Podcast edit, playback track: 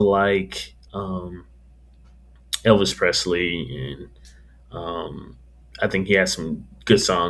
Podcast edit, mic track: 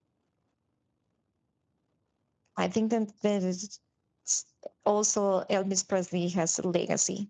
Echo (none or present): none